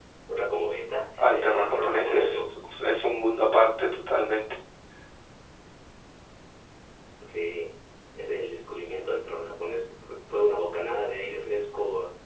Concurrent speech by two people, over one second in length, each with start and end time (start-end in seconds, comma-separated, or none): 1.2-2.5